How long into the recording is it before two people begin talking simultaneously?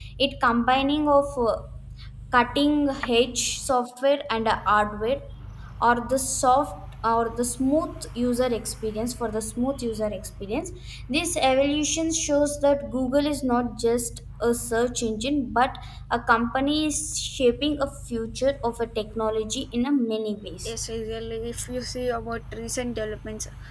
none

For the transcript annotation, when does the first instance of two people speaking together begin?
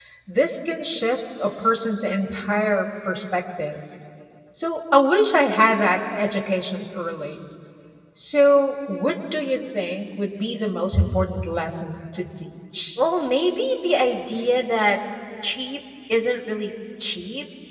none

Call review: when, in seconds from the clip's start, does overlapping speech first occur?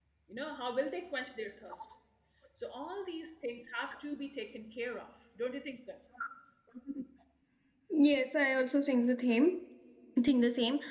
none

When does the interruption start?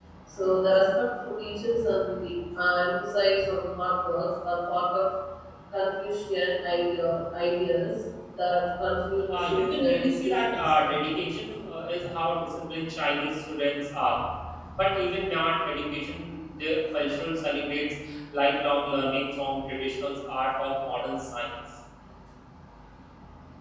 9.3 s

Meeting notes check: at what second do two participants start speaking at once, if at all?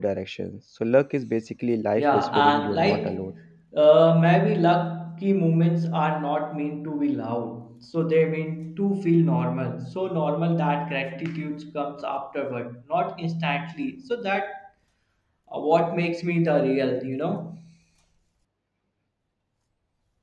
2.0 s

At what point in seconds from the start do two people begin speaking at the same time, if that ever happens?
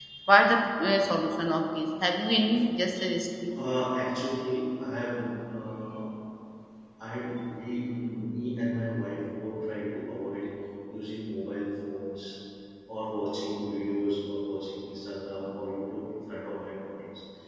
none

